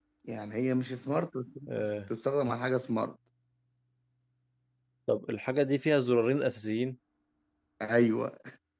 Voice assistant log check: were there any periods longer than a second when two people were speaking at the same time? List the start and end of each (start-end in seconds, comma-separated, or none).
none